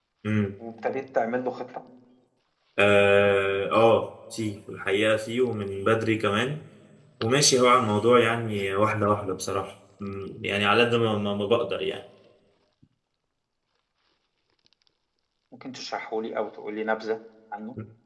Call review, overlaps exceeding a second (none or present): none